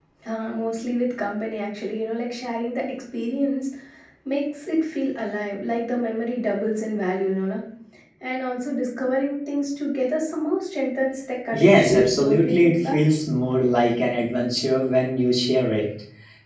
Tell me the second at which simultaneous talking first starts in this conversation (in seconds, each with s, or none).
11.5 s